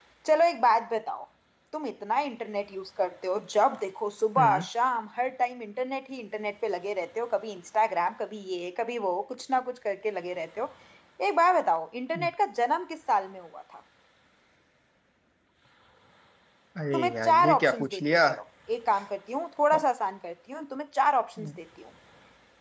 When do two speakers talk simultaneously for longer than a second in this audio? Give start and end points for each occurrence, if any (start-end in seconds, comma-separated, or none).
16.9-18.3